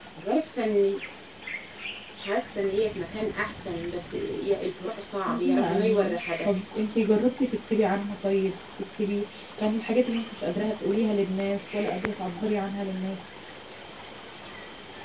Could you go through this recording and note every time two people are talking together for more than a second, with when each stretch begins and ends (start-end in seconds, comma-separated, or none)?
5.3-6.5